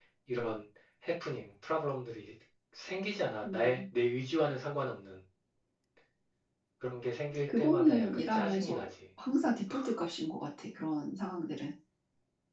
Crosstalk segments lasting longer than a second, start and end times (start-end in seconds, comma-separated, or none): 7.6-8.8